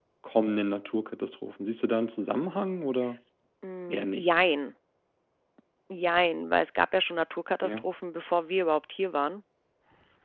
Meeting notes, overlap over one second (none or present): none